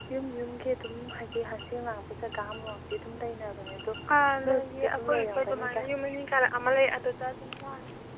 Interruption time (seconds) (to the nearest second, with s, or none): 4 s